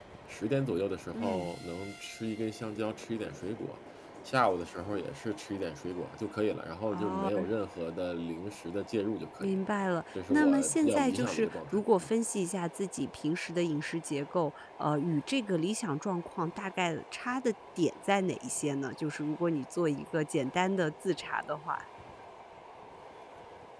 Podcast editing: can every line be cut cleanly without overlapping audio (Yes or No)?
No